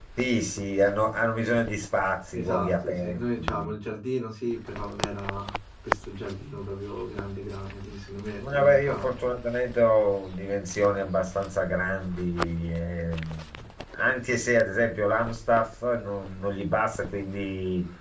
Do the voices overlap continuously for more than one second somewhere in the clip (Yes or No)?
Yes